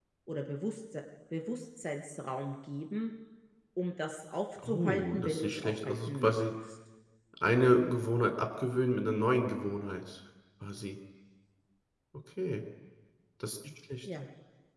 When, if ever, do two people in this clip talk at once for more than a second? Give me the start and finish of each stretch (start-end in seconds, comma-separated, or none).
4.6-6.3